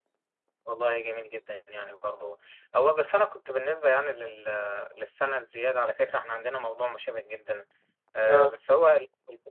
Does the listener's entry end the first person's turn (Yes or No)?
No